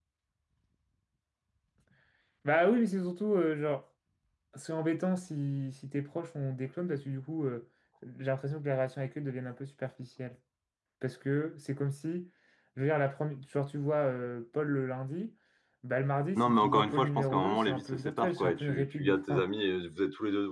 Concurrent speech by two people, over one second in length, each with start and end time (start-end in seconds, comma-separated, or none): 16.4-19.4